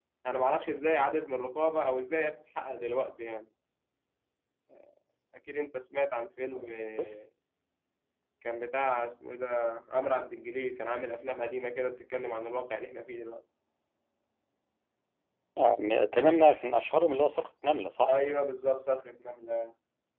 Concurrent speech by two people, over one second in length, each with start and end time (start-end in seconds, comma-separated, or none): none